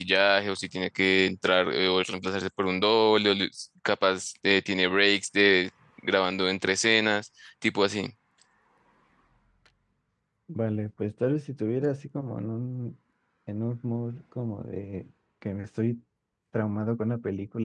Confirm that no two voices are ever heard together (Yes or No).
Yes